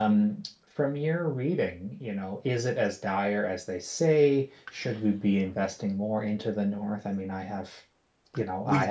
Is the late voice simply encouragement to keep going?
Yes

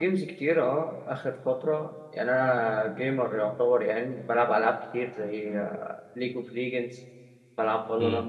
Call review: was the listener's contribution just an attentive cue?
Yes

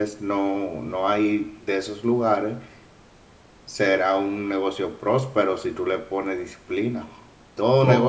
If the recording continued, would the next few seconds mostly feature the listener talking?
No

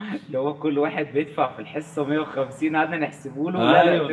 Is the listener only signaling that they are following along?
No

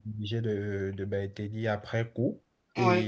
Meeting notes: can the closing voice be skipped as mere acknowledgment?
Yes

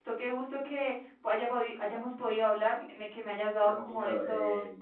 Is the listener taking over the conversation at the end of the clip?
Yes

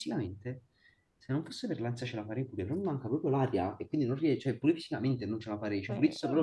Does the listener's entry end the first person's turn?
Yes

